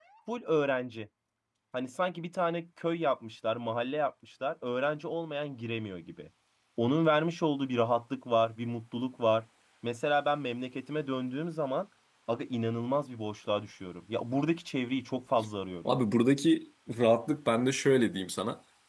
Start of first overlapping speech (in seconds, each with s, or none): none